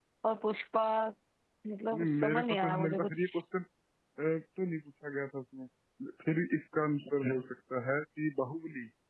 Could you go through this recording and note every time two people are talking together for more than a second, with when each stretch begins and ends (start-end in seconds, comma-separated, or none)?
1.9-3.2